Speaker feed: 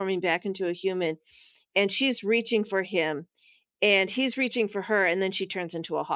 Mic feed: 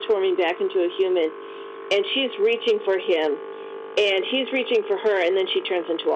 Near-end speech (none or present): none